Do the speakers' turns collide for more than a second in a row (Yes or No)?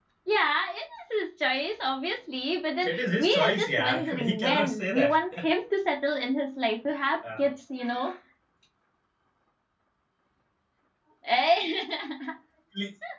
Yes